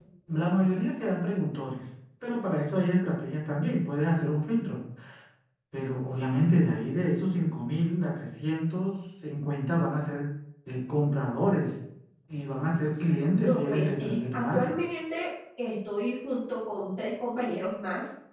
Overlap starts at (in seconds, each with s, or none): 13.3 s